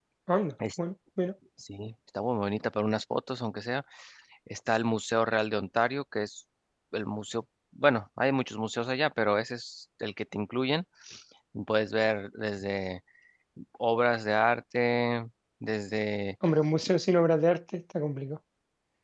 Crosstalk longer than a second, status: none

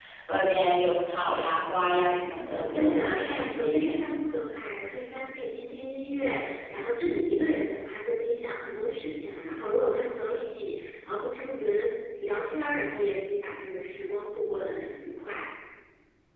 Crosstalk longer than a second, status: present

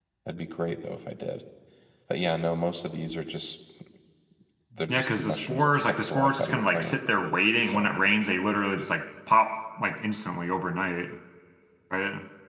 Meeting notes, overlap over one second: present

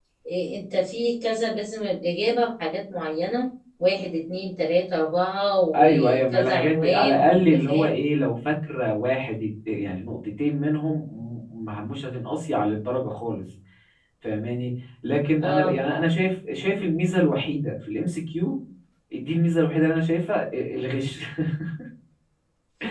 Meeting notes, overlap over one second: present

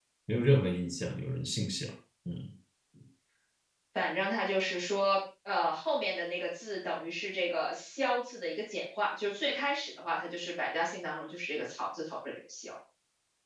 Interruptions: none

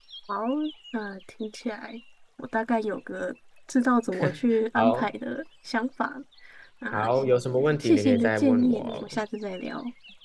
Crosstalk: present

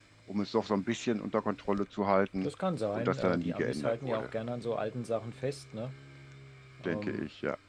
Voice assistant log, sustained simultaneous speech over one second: present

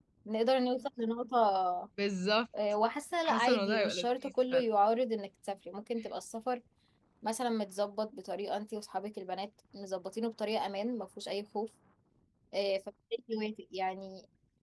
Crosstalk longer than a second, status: present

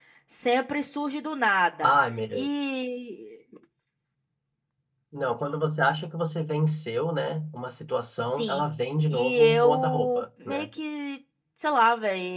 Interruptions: present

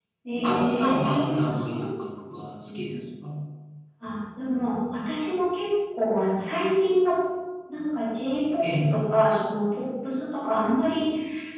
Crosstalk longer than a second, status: present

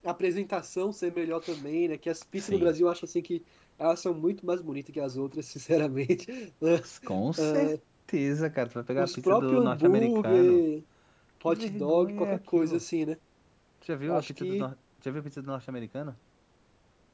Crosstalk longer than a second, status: present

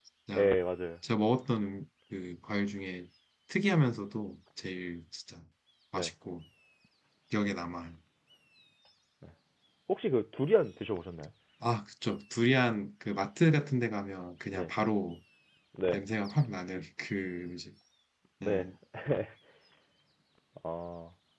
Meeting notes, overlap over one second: none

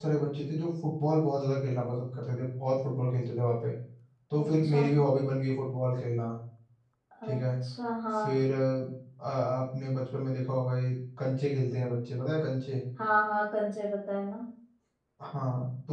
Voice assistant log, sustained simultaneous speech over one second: none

